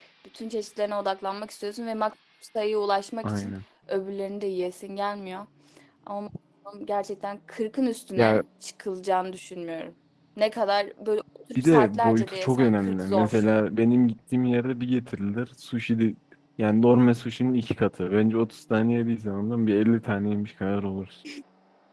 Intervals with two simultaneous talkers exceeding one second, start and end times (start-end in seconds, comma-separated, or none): 11.6-13.4